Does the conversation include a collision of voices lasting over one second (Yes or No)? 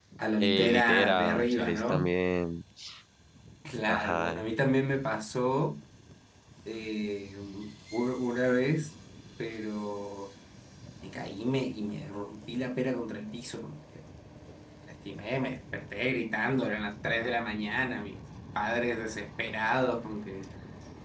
Yes